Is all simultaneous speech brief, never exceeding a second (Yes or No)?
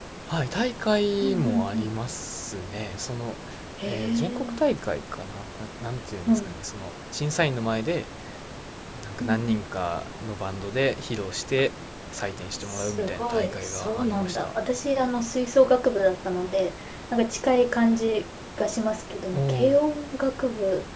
No